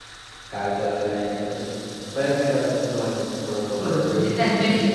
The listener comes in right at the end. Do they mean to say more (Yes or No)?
Yes